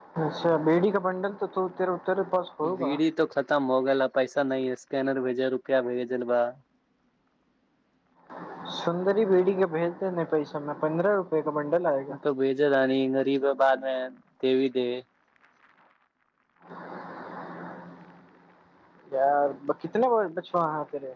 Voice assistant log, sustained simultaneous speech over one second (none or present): none